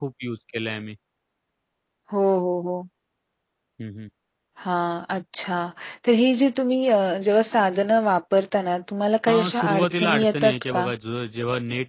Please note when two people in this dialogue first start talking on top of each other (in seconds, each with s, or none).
9.3 s